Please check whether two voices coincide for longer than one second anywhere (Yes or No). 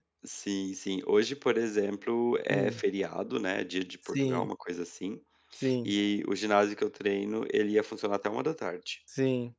No